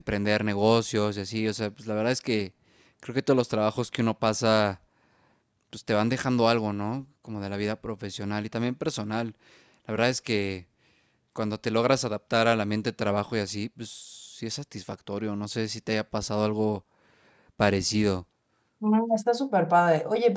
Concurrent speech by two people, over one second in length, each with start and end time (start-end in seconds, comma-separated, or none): none